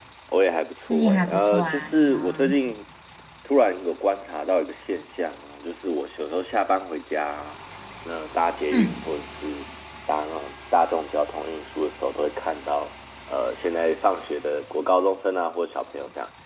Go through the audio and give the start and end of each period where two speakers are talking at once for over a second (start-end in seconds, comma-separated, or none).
0.9-2.5